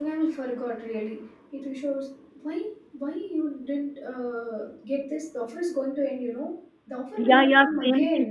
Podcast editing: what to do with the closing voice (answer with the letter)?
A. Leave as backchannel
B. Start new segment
B